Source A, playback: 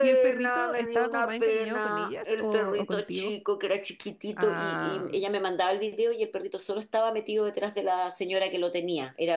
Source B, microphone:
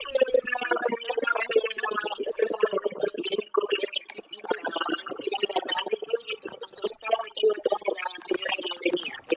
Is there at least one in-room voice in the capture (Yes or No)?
No